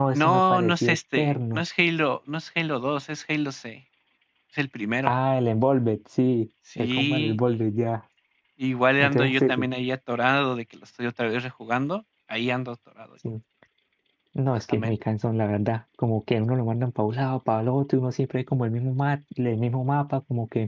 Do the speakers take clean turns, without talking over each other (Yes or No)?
No